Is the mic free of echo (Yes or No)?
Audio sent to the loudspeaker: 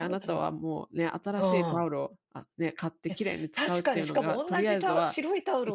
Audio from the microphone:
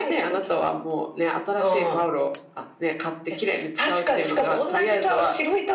No